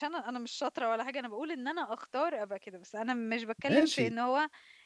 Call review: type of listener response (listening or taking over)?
listening